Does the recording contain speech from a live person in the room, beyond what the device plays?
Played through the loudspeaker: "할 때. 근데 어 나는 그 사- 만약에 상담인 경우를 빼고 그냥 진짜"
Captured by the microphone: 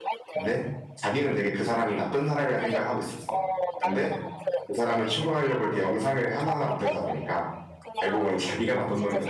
Yes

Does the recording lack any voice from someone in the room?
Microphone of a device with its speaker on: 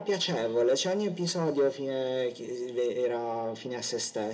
Yes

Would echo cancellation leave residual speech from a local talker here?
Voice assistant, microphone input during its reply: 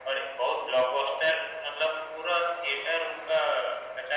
No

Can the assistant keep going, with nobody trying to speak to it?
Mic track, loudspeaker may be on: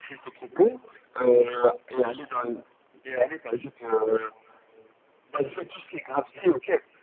No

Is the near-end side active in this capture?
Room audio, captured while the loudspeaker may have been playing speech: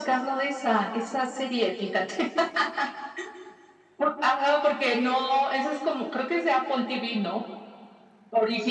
No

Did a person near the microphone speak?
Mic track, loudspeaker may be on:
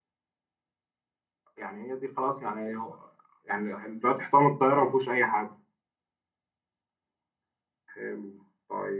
Yes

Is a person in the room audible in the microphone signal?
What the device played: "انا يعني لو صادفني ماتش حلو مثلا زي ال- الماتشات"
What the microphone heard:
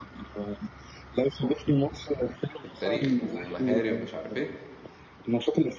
Yes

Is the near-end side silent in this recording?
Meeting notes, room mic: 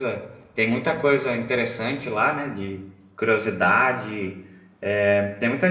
No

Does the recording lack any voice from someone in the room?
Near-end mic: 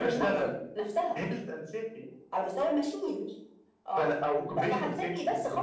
Yes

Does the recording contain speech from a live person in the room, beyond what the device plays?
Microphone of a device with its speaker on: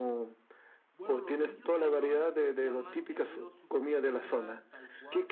Yes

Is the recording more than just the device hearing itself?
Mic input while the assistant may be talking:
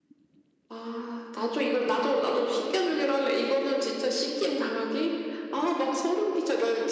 No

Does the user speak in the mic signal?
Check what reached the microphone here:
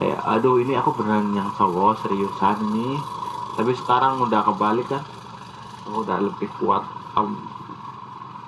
No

